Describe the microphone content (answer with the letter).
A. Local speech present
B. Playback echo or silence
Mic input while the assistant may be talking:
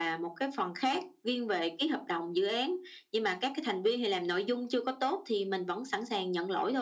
B